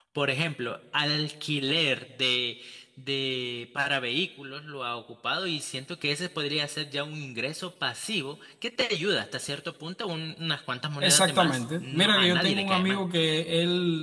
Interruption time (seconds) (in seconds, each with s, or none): 11.0 s